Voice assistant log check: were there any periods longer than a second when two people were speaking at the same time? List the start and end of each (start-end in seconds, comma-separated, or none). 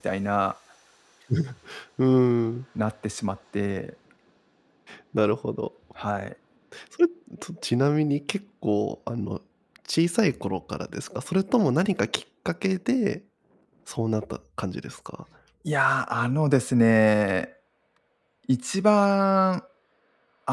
none